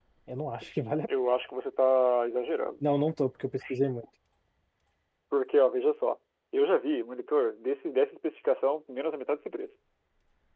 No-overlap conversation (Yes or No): Yes